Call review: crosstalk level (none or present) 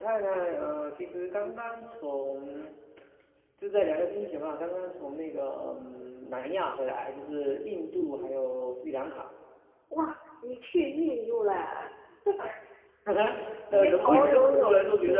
present